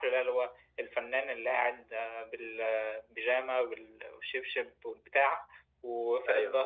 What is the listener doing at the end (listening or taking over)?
listening